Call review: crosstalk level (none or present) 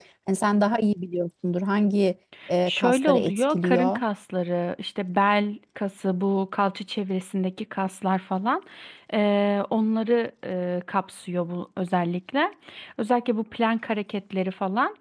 present